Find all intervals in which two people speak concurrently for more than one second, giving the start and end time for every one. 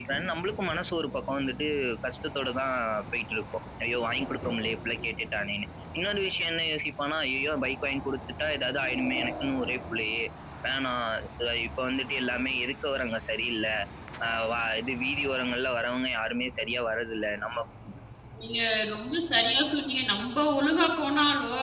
none

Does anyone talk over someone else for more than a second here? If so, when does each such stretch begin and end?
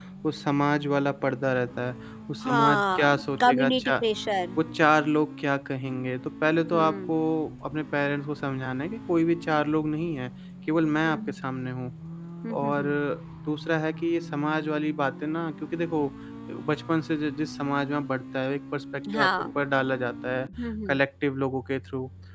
2.4-3.9

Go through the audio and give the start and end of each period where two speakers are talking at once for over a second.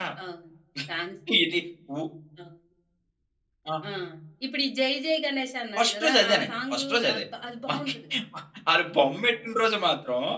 5.8-7.2

